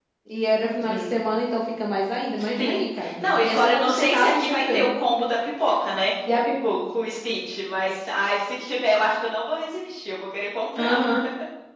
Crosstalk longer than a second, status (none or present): present